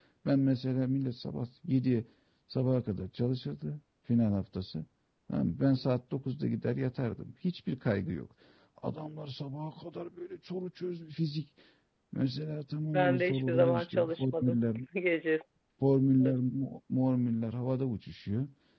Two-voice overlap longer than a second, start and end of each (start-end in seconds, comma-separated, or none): 12.9-14.6